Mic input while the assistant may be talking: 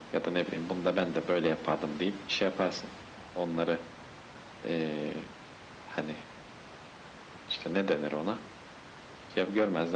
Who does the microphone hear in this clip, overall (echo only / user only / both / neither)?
echo only